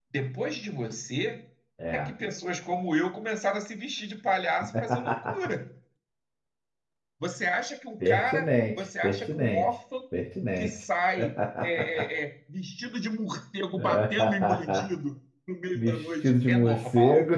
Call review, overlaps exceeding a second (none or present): present